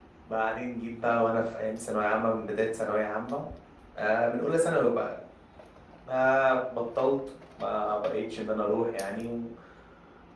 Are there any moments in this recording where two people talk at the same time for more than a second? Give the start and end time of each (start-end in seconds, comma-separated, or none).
none